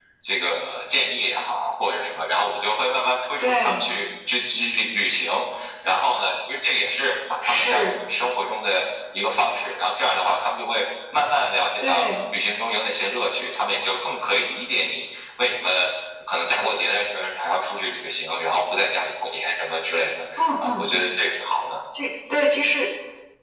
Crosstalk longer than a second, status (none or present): none